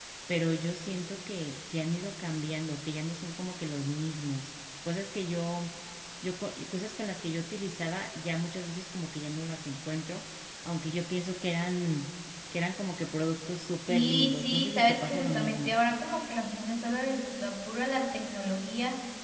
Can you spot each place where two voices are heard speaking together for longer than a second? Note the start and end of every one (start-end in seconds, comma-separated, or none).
13.9-15.7